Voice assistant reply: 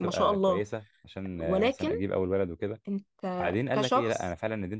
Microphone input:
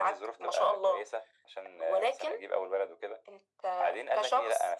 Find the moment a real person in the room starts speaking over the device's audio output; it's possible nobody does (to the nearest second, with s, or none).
none